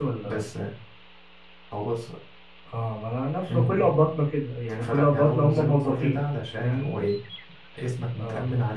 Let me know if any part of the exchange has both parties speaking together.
Yes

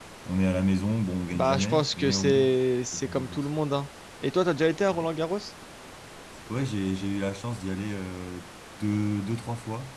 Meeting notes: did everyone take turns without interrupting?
No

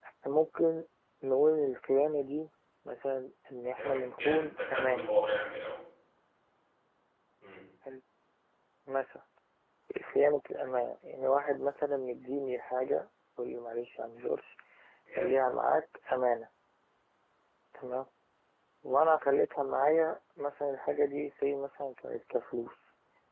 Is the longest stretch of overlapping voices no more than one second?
No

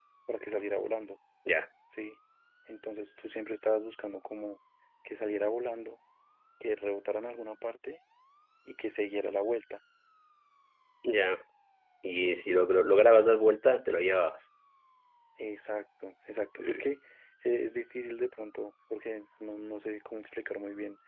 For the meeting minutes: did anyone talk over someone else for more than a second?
No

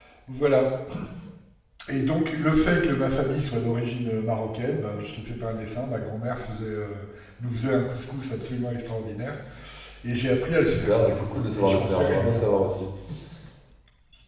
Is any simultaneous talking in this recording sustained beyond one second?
Yes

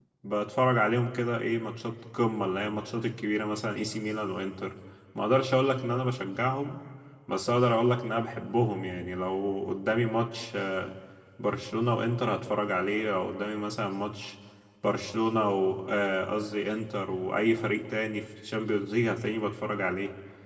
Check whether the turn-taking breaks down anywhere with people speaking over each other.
No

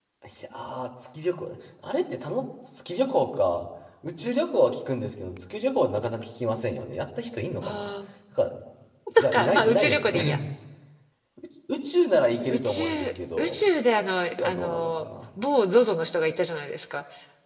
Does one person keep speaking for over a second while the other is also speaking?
Yes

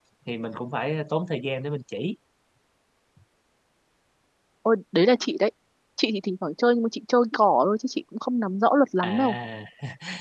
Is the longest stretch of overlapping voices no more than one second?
Yes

